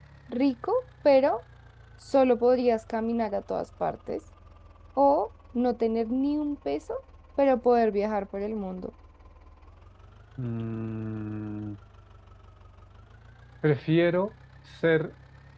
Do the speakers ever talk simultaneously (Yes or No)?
No